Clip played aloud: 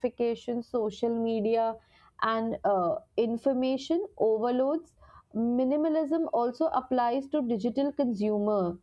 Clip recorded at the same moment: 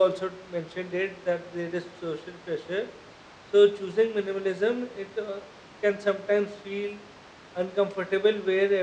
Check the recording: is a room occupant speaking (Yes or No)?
Yes